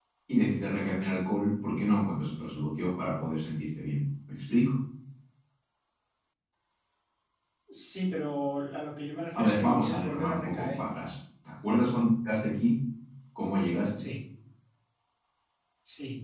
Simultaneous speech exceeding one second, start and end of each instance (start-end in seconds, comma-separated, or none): 9.4-10.8